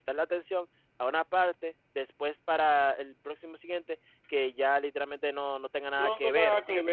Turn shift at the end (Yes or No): Yes